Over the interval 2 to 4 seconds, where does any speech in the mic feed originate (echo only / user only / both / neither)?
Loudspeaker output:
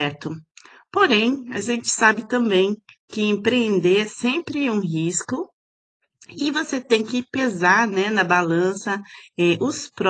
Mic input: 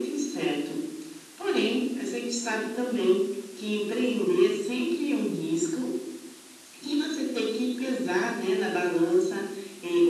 echo only